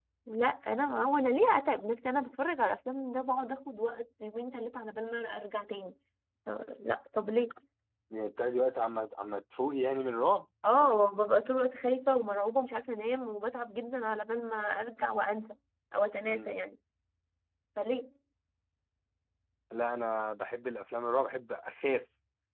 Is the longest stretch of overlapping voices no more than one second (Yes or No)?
Yes